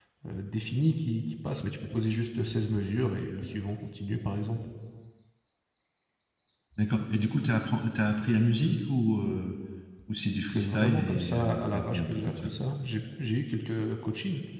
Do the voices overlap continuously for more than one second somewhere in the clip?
Yes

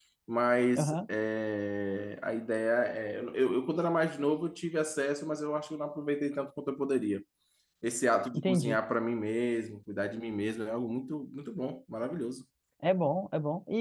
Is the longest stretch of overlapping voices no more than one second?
Yes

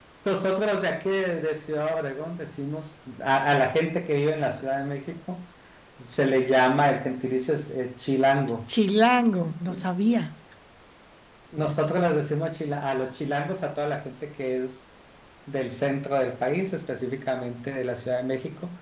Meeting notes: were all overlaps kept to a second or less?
Yes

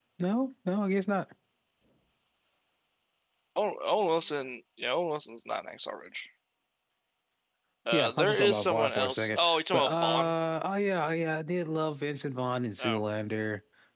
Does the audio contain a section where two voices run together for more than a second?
Yes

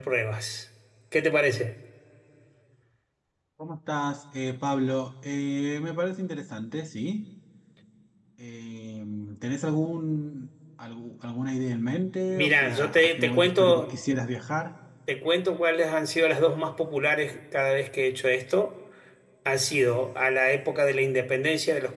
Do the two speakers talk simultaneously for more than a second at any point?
Yes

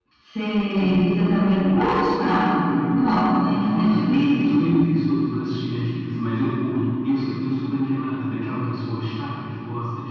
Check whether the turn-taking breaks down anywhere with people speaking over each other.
Yes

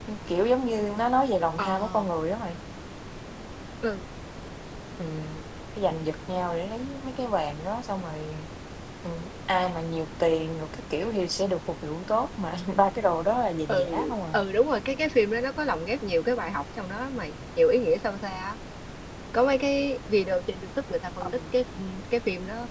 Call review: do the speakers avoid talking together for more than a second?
Yes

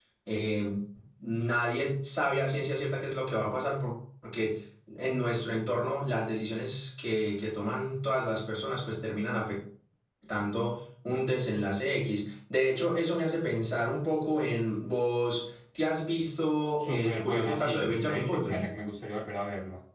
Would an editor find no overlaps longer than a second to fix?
No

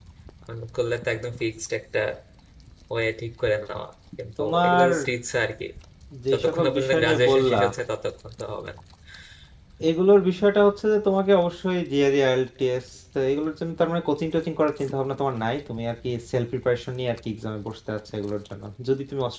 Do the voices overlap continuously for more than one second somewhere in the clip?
Yes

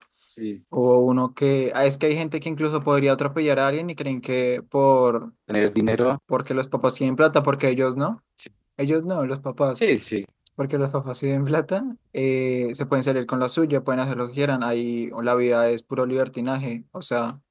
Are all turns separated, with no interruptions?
Yes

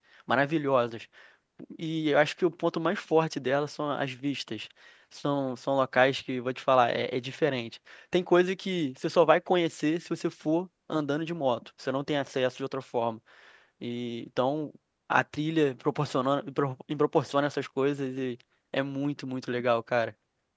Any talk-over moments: No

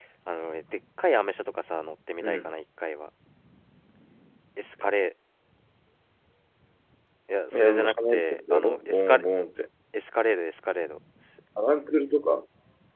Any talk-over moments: Yes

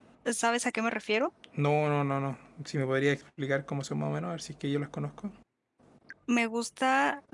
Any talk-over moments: No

